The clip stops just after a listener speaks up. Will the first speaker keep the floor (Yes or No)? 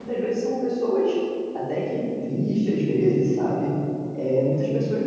Yes